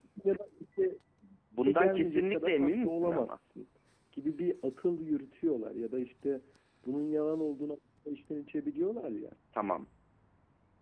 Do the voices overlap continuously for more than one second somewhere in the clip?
Yes, from 1.6 s

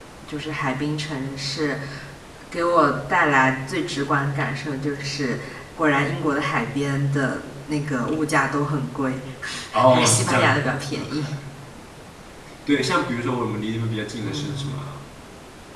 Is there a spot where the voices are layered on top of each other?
Yes, from 9.9 s

